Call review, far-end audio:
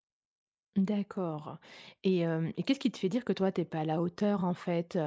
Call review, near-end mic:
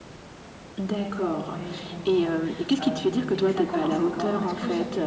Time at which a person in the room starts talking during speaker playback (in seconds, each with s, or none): 0.8 s